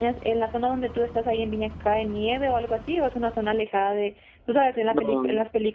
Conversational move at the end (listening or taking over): listening